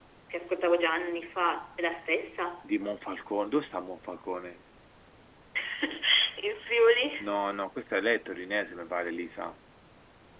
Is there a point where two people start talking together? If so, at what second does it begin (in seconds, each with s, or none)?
none